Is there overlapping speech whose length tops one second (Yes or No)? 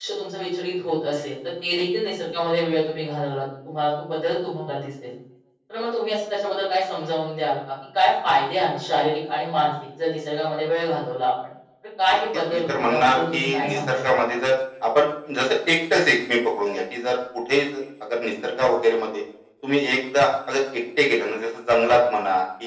Yes